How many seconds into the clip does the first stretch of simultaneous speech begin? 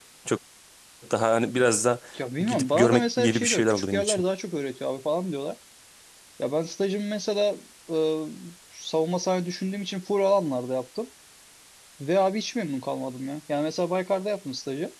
2.4 s

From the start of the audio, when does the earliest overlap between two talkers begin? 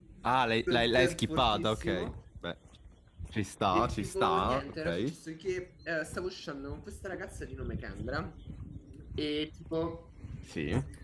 0.7 s

